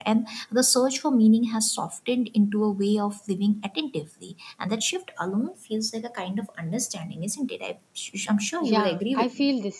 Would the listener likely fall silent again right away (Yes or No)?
No